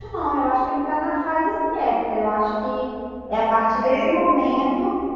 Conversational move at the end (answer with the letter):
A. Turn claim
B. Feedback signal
B